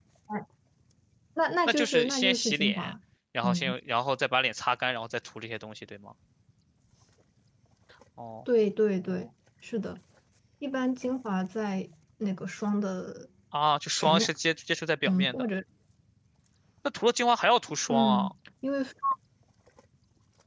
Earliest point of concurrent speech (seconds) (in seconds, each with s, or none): 1.7 s